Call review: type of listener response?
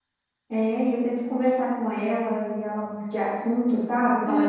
taking over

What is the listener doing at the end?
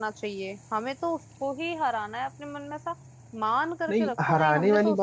taking over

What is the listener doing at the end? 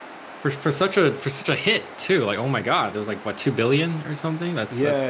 taking over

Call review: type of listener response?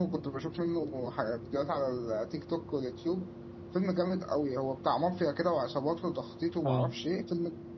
listening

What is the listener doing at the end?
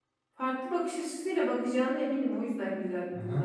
taking over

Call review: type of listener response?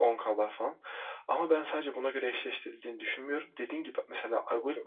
listening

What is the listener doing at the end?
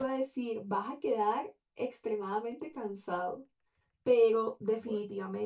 listening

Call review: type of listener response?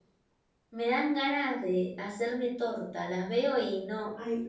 taking over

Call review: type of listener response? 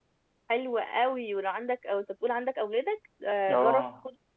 listening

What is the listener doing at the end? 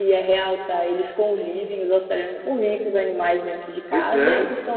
listening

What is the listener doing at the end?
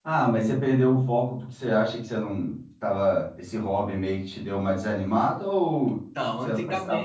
taking over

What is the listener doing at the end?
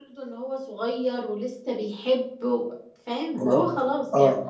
taking over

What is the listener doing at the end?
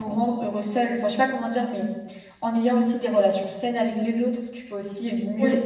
listening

